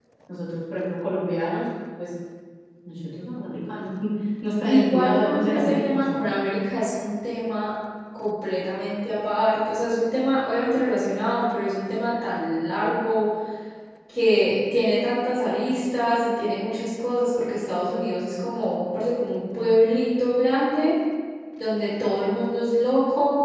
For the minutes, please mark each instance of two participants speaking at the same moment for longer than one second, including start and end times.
4.7-6.0

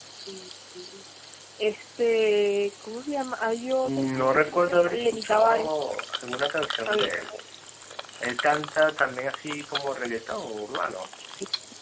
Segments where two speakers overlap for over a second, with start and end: 3.8-5.7

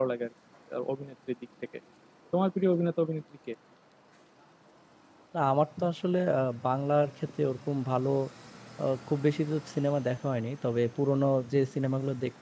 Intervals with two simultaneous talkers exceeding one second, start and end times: none

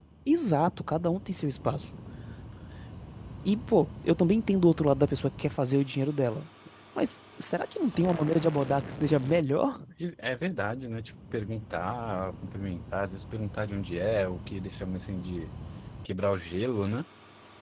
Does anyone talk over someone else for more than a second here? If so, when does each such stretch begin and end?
none

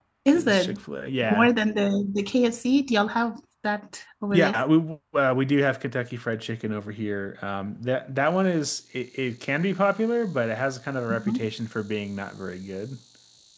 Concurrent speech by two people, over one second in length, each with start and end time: none

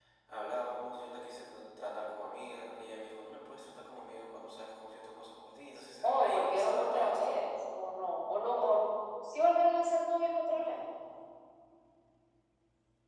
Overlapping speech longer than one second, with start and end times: 6.0-7.4

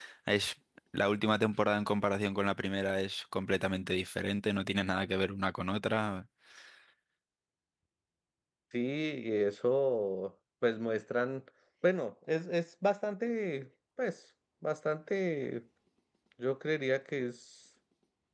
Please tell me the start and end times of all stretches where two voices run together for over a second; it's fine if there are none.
none

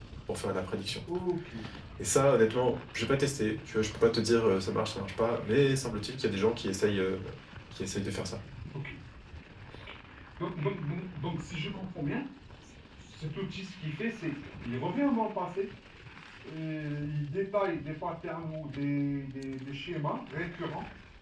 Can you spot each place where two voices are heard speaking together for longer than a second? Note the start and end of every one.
none

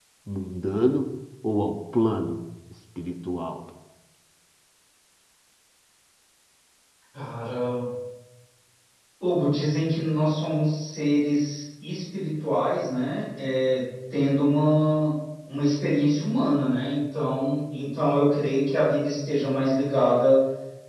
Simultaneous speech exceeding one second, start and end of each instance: none

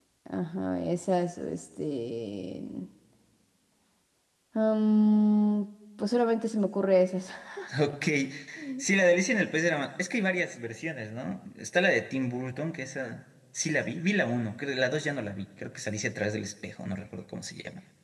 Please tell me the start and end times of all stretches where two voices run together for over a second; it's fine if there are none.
none

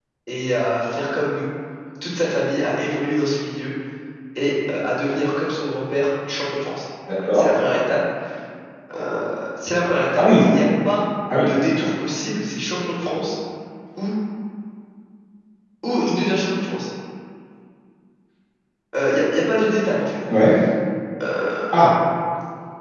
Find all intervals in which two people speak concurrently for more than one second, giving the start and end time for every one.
none

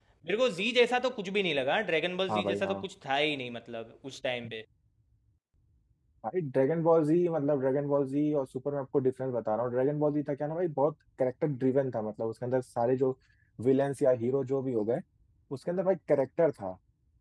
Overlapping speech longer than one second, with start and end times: none

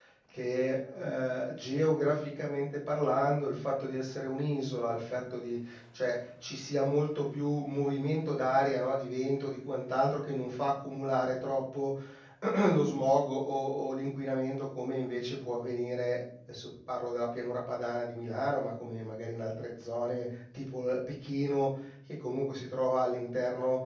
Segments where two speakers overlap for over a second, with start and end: none

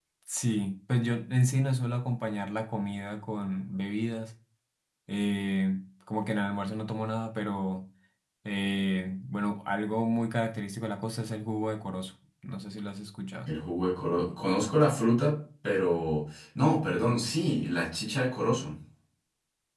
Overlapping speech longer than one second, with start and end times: none

